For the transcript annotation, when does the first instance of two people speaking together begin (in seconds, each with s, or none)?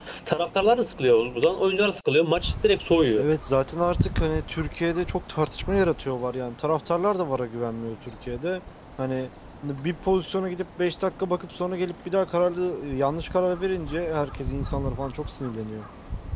none